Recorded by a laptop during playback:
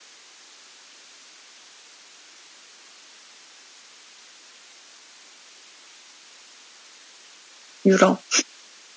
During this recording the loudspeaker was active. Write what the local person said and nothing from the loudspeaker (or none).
유럽.